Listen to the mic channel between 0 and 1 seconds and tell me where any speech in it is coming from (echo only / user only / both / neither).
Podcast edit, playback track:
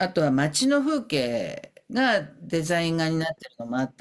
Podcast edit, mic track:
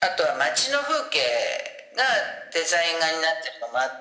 echo only